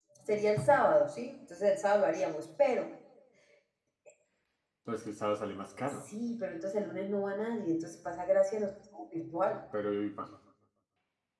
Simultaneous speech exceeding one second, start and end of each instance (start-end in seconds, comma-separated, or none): none